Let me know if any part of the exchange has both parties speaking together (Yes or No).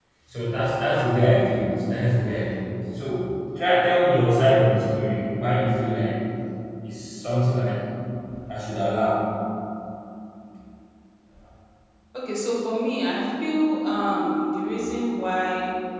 No